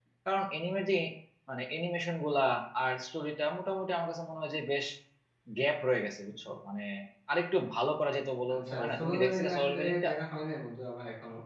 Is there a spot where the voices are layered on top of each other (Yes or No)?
Yes